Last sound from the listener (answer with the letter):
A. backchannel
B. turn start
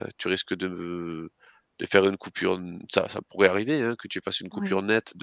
A